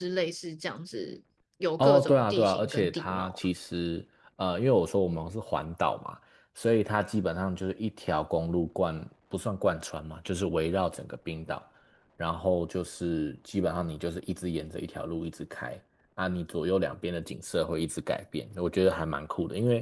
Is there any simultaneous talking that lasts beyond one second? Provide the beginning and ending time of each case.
1.8-3.5

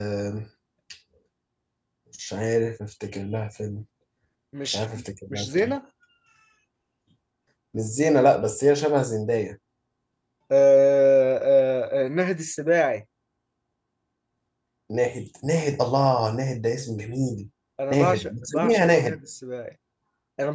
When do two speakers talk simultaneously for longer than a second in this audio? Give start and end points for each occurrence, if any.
17.9-19.2

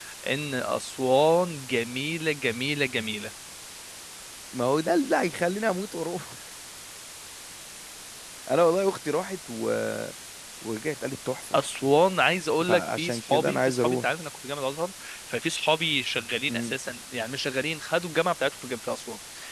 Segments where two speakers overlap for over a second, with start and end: 12.7-14.1

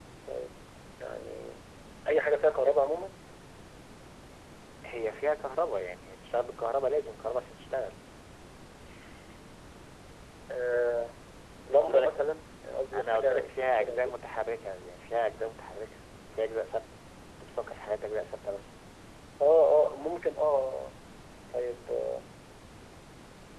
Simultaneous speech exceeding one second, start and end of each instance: 12.9-14.2

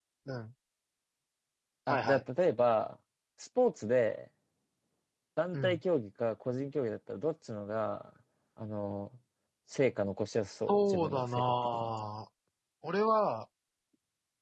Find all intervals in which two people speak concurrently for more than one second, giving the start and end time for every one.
10.7-11.9

